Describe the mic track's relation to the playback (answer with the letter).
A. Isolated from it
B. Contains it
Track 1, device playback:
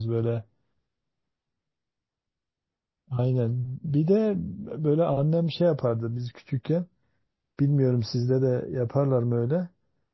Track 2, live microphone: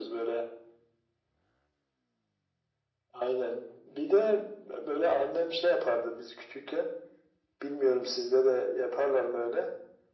B